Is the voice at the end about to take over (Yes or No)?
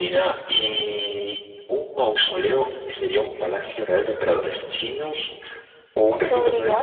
No